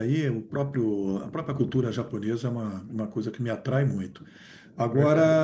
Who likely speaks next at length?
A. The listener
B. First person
B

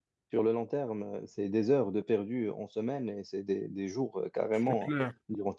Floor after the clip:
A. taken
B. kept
B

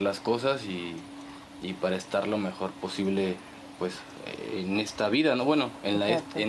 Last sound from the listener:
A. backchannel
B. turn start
A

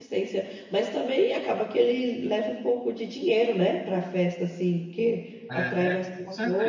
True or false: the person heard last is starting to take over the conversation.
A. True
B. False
A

